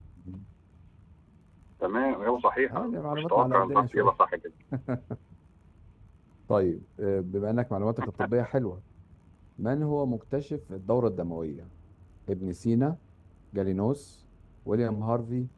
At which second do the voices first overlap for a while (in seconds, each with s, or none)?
2.7 s